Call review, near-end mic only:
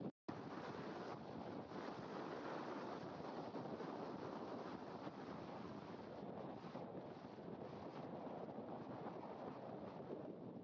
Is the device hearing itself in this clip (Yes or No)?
No